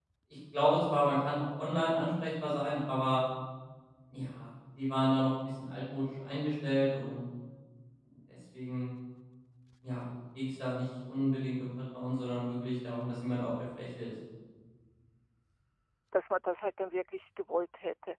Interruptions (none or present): none